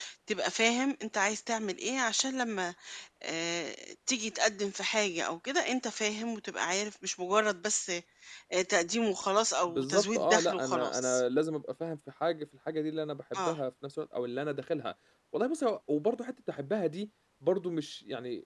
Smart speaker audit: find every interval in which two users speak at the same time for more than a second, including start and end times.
9.7-11.2

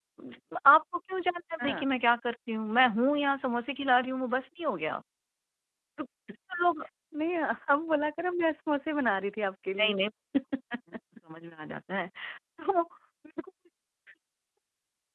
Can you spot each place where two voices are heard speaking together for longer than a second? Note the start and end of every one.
none

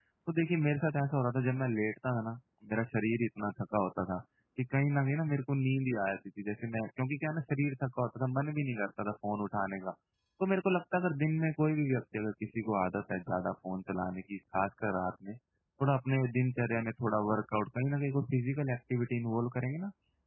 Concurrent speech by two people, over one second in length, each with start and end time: none

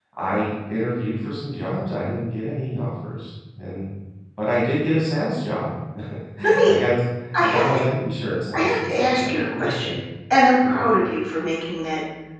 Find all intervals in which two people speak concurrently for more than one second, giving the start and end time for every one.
8.5-9.9

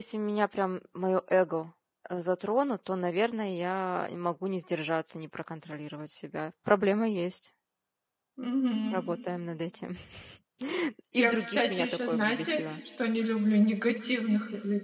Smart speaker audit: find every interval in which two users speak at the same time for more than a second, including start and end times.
11.2-12.6

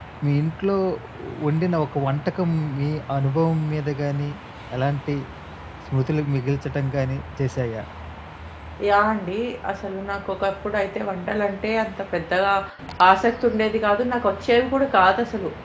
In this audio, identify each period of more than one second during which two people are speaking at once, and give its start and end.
none

